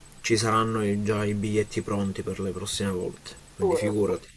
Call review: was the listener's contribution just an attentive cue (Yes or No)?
No